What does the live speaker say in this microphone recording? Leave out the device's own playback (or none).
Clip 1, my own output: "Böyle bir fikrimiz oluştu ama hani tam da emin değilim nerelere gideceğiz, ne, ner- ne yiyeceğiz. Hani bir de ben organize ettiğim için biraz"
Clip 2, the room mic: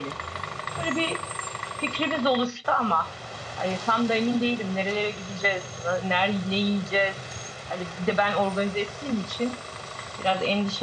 none